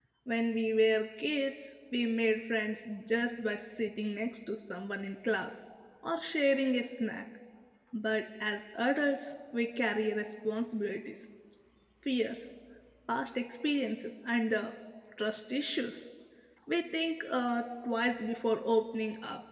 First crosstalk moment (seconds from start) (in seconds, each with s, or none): none